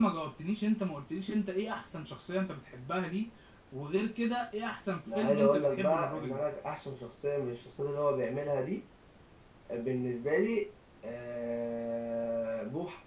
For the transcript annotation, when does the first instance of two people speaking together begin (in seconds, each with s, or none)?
5.1 s